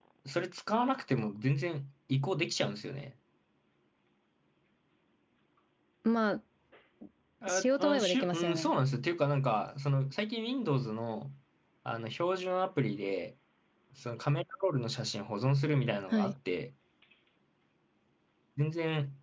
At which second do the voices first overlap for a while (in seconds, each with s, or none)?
7.5 s